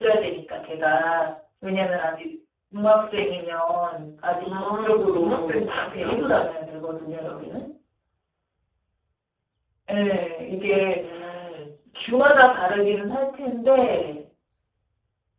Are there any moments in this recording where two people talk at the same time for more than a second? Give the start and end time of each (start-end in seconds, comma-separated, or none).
4.4-6.2